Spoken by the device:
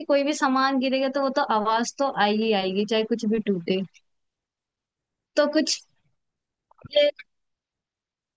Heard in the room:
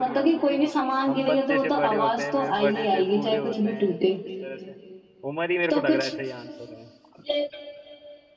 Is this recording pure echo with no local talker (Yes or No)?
No